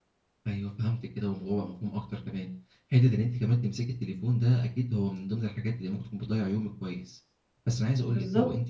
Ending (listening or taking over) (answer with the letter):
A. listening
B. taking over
A